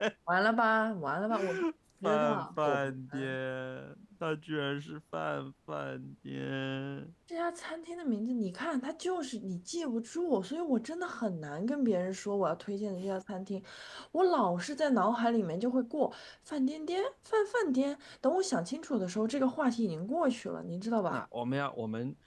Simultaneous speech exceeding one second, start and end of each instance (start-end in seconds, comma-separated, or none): 2.0-3.4